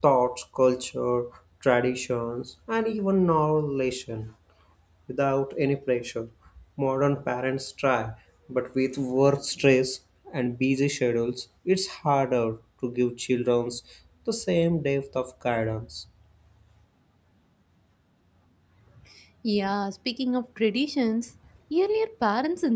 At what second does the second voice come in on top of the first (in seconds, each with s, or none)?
none